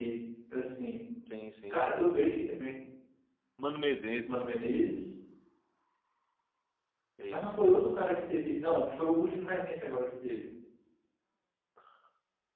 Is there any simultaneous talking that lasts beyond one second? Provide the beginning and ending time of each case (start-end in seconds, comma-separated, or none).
none